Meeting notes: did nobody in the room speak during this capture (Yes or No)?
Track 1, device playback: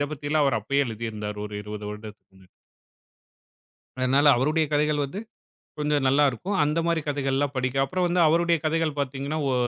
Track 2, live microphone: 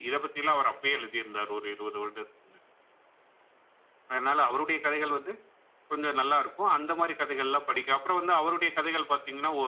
Yes